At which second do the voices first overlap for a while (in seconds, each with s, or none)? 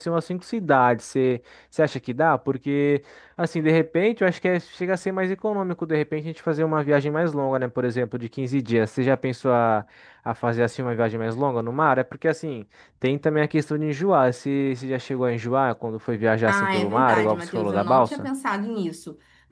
16.5 s